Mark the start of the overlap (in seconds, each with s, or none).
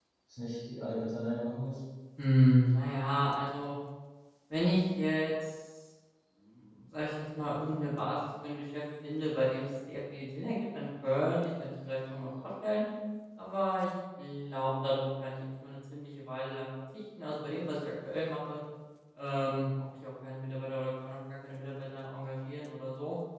none